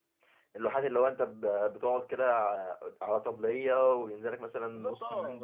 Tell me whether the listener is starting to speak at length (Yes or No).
Yes